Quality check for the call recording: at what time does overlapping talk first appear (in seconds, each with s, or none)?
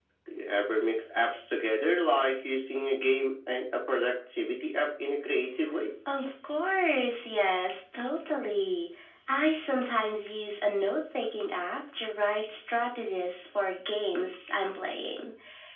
none